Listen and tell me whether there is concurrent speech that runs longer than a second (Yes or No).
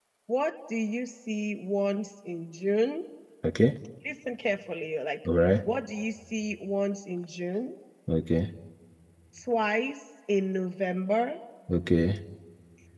No